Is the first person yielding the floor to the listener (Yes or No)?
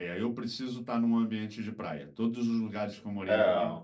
No